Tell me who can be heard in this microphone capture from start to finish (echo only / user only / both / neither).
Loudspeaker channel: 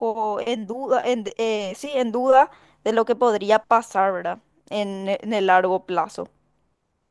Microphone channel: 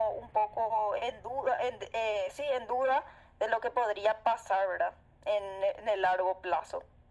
echo only